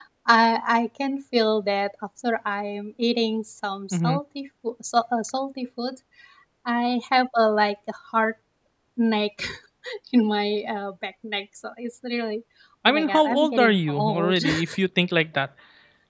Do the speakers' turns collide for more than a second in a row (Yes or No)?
Yes